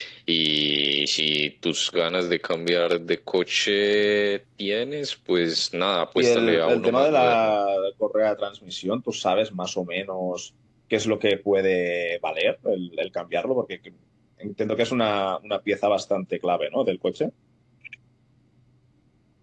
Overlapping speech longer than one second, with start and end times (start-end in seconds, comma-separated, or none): 6.2-7.5